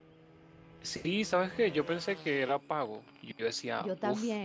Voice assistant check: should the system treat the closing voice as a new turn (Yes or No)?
No